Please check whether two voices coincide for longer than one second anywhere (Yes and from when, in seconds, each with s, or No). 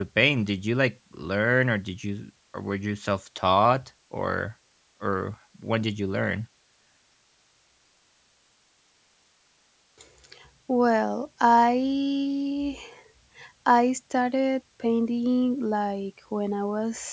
No